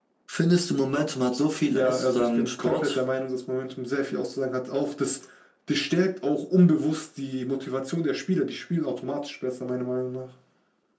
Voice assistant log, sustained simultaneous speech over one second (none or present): present